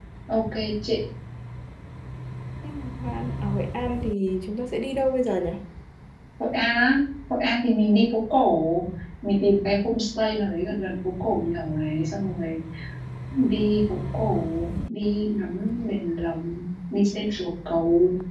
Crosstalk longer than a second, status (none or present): none